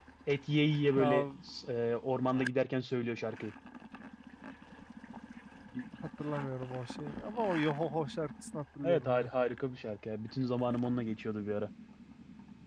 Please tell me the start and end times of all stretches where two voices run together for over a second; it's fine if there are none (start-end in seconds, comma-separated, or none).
none